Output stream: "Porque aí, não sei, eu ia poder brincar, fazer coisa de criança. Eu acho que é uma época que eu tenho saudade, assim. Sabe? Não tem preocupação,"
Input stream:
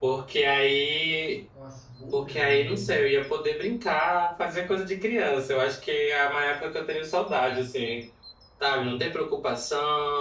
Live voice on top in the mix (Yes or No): No